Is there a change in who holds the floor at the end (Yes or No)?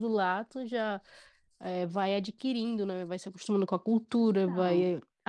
No